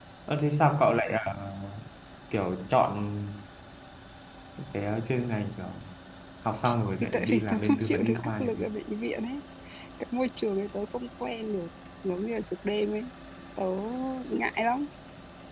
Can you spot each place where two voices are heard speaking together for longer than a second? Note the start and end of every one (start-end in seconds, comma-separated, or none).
7.0-8.6